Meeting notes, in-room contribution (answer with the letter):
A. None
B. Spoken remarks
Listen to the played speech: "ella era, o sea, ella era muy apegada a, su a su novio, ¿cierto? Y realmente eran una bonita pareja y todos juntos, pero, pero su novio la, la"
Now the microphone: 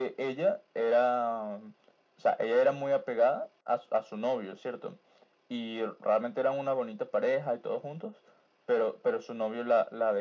A